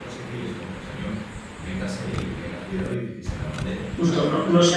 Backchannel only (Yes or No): No